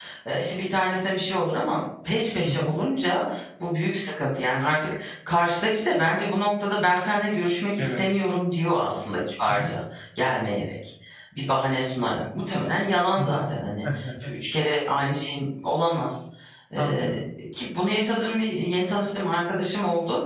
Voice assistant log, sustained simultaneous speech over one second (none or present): none